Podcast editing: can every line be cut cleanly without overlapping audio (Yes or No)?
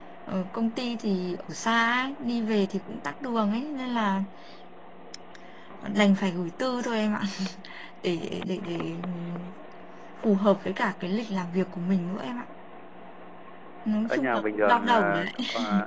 No